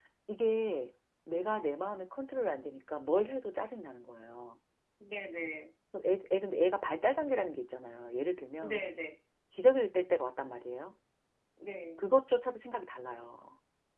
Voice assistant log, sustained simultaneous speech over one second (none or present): none